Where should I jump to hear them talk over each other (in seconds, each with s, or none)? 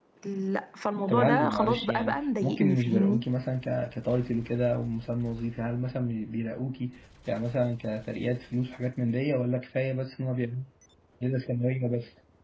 1.1 s